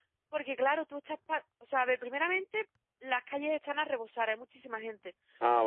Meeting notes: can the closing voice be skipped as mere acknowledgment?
Yes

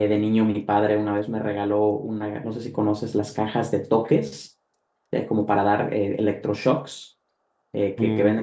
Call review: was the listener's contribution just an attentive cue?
No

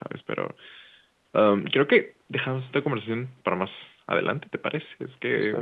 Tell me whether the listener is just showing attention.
Yes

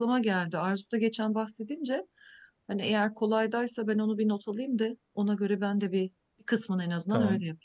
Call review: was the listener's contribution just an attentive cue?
No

